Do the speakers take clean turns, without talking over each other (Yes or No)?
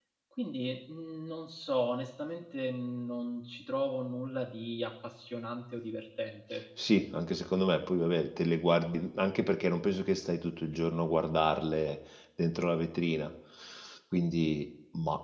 Yes